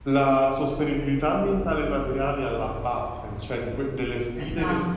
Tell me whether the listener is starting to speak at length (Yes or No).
No